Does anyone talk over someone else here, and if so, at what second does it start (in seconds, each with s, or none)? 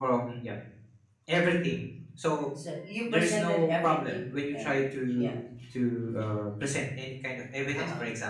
3.1 s